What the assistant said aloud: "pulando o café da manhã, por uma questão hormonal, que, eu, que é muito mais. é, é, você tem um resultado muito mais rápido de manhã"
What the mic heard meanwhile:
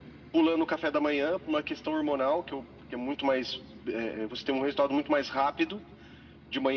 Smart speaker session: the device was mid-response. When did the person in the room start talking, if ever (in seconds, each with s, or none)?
none